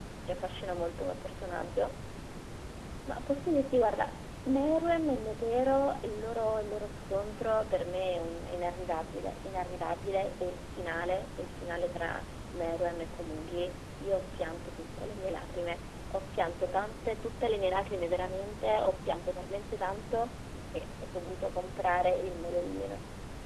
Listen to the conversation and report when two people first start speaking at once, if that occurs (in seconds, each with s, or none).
none